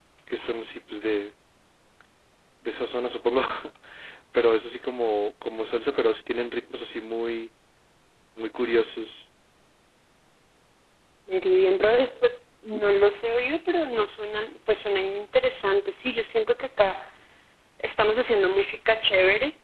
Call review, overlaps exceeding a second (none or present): none